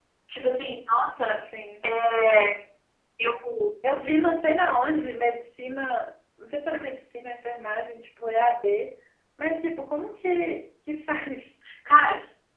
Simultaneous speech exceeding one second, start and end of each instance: none

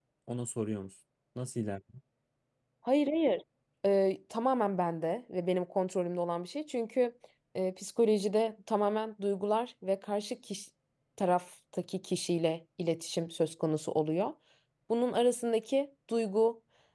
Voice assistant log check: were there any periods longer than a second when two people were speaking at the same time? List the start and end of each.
none

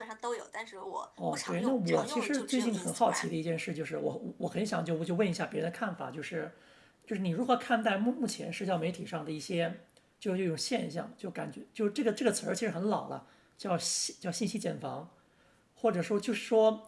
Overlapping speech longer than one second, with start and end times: 1.3-3.3

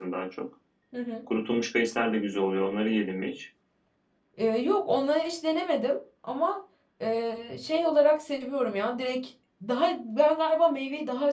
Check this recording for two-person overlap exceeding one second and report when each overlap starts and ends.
none

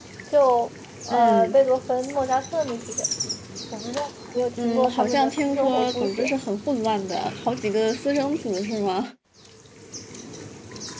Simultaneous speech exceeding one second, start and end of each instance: 4.6-6.3

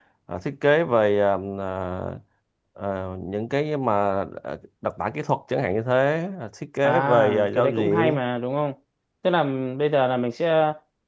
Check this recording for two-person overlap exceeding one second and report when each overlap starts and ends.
6.8-8.2

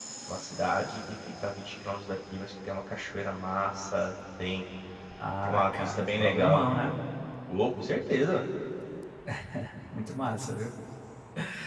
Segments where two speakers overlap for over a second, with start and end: 5.4-6.7

